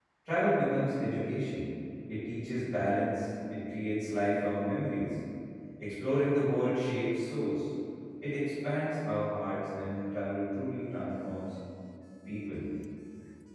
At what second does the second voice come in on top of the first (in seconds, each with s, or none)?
none